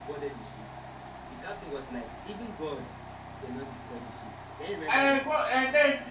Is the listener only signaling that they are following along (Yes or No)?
No